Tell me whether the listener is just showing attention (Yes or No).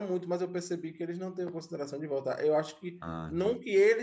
Yes